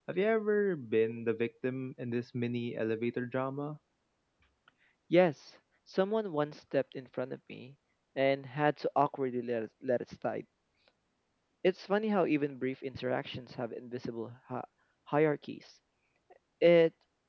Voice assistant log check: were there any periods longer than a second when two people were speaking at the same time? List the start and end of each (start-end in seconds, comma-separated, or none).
none